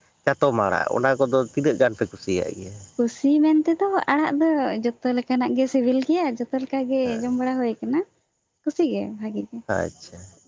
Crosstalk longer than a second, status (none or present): none